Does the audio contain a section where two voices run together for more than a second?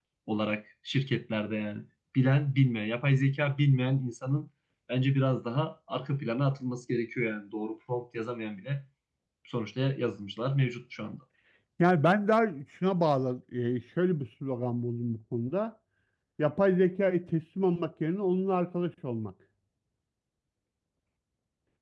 No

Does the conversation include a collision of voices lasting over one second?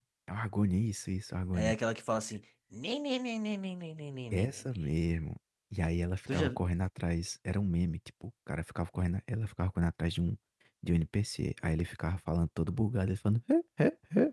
No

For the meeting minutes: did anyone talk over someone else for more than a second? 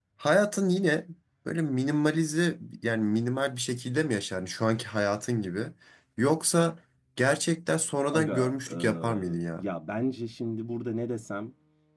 Yes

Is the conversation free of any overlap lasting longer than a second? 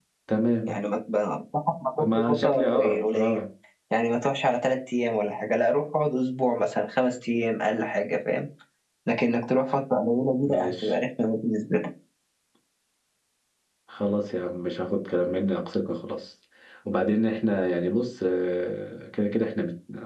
No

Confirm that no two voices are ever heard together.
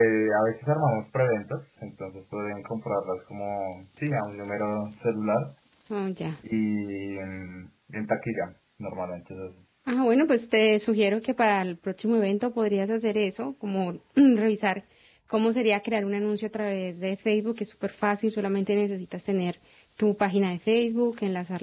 Yes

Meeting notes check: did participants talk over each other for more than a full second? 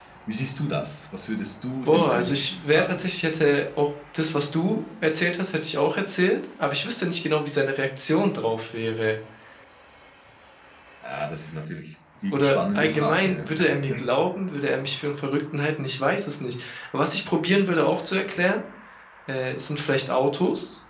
Yes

